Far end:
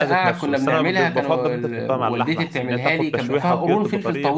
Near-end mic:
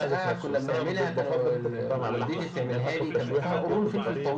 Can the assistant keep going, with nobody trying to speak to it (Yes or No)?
No